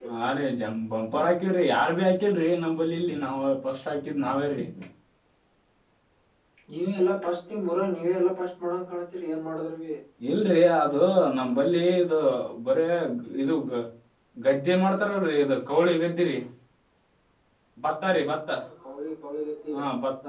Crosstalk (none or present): none